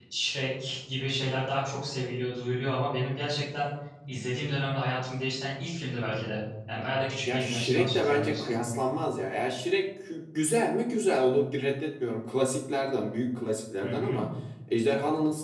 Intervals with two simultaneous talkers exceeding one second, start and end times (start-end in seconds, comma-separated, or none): 7.2-8.5